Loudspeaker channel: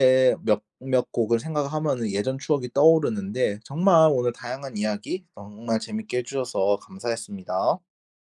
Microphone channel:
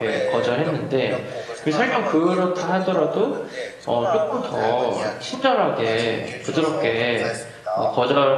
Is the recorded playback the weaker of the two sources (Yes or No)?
Yes